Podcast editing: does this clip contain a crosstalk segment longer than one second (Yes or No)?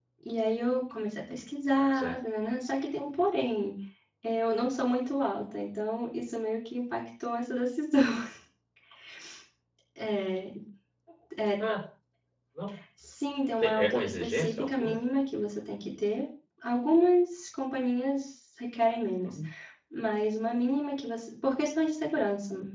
Yes